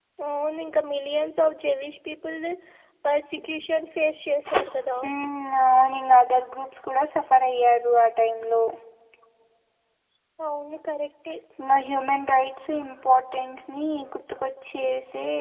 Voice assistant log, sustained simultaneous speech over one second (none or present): none